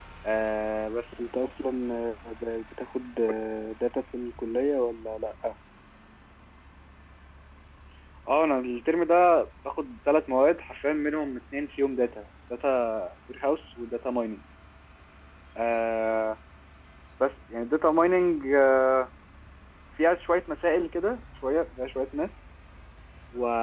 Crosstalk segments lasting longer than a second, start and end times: none

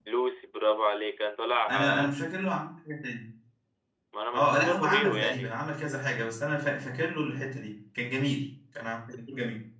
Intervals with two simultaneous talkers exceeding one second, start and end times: 4.3-5.6

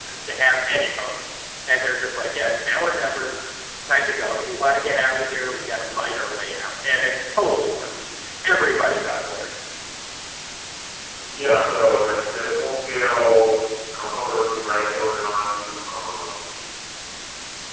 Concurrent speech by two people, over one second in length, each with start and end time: none

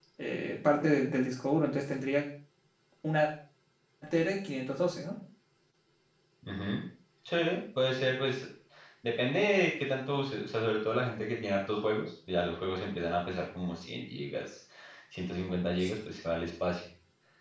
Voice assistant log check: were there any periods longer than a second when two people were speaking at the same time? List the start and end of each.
none

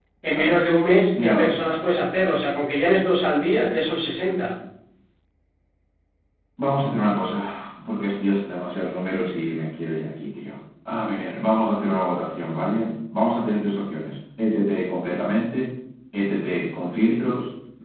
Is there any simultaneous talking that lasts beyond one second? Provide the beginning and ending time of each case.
none

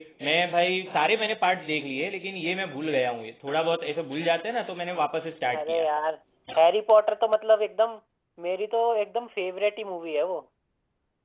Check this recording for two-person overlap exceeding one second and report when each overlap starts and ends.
none

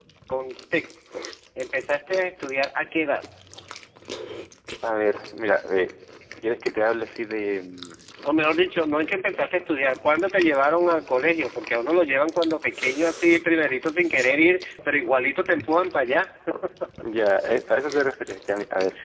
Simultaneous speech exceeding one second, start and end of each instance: none

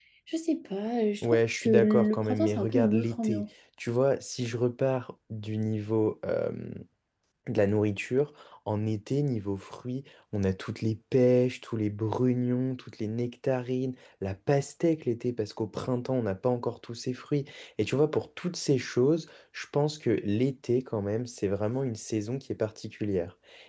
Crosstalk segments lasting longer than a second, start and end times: 1.2-3.4

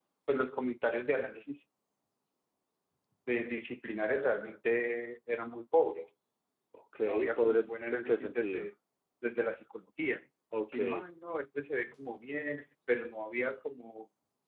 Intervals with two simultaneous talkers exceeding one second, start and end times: 7.0-8.7

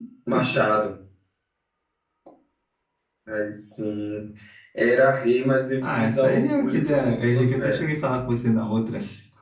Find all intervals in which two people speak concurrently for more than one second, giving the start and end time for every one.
5.8-7.9

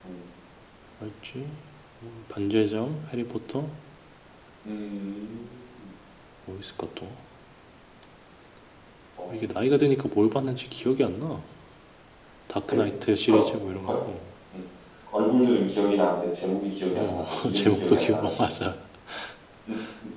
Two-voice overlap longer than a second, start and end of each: 16.9-18.3

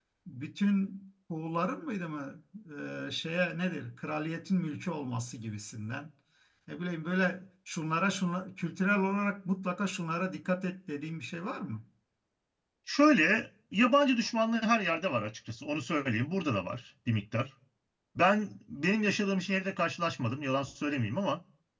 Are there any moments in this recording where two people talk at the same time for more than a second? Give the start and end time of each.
none

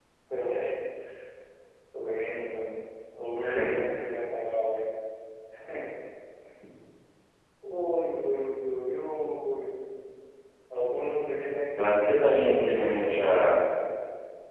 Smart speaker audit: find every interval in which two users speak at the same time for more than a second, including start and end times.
11.8-13.6

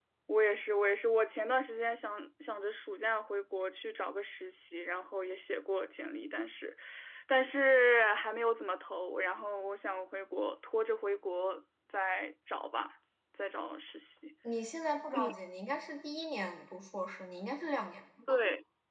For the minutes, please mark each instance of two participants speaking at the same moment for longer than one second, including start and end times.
none

